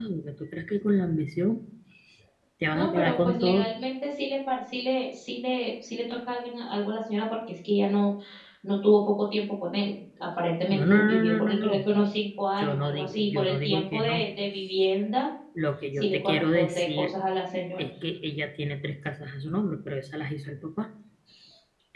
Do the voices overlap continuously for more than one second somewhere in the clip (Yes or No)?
Yes